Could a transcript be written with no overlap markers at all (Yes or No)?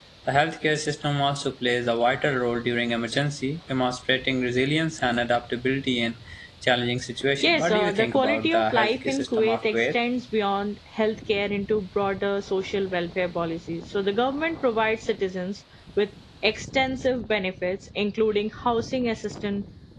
No